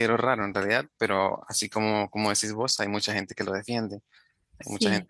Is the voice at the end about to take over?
No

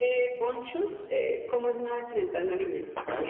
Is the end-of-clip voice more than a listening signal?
Yes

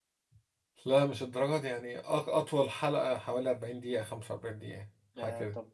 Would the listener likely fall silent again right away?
No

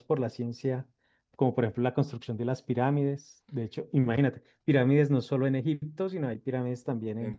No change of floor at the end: No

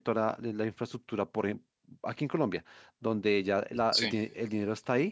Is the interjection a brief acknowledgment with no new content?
Yes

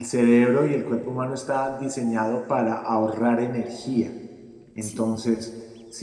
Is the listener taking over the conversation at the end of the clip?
No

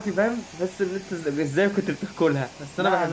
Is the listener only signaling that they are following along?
No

